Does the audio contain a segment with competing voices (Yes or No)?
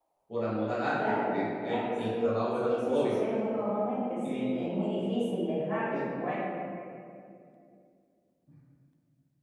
Yes